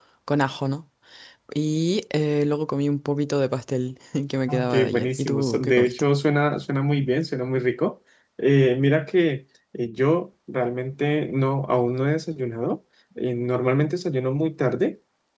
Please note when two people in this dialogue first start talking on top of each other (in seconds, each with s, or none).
4.5 s